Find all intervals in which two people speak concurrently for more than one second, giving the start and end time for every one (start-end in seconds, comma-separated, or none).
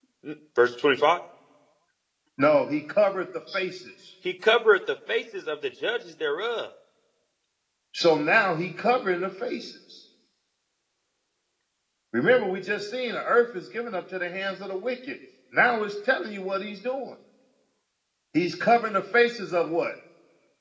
none